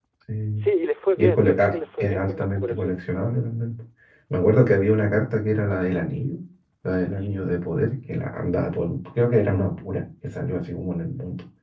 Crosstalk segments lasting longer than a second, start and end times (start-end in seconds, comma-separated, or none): 1.2-3.0